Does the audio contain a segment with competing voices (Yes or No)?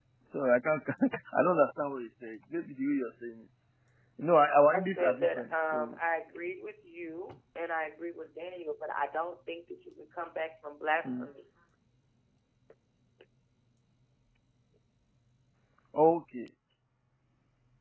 Yes